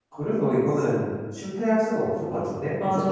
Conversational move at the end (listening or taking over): taking over